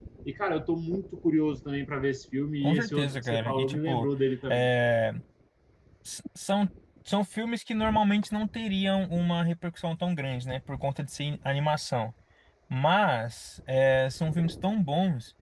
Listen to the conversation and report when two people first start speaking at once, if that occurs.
2.6 s

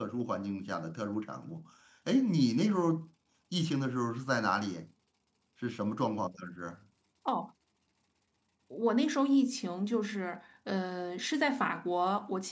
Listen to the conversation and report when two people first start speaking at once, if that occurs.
none

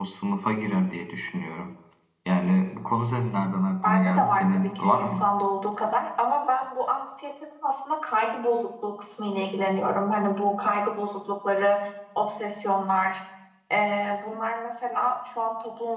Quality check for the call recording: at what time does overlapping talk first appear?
3.8 s

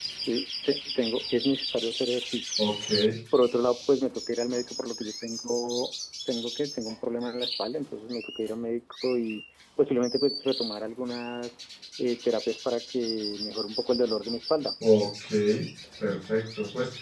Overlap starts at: none

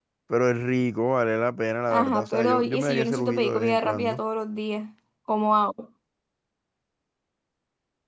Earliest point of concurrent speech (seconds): 1.9 s

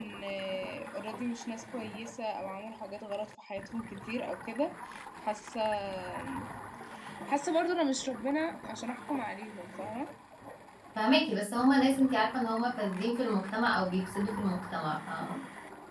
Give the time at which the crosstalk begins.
none

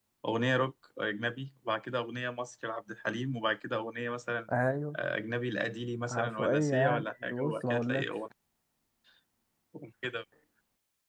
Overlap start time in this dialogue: 6.1 s

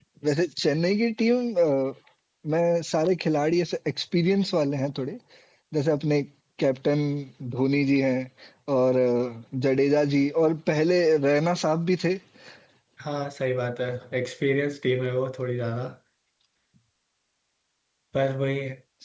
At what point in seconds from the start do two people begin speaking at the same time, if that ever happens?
none

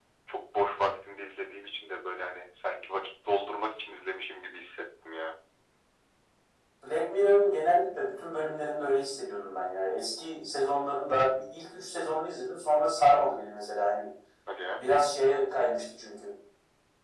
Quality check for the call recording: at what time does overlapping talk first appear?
none

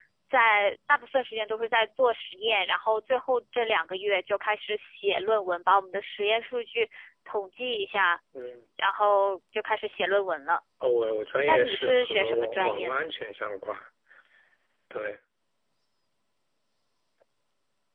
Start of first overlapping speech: 11.4 s

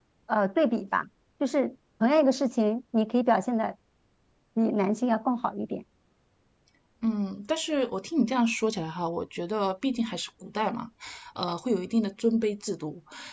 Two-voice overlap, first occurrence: none

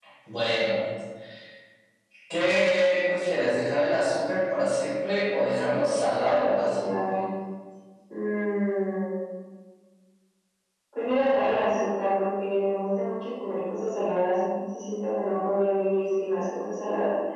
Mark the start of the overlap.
5.6 s

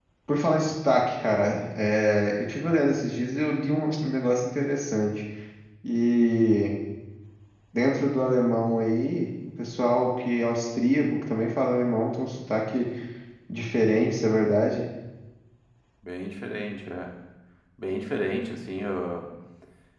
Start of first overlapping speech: none

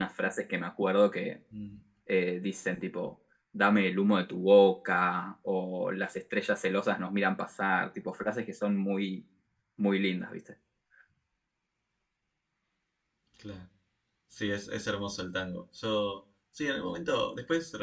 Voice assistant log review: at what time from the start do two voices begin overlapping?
none

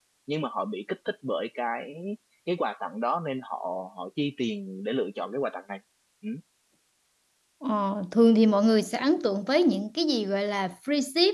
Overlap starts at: none

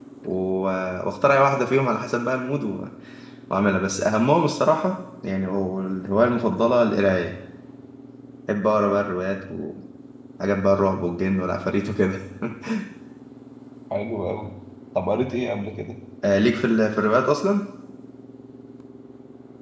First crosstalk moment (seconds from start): none

